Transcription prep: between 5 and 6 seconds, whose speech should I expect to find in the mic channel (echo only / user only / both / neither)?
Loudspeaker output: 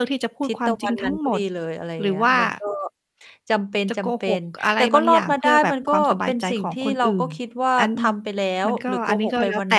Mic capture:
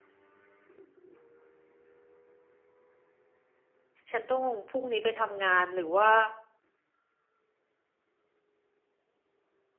user only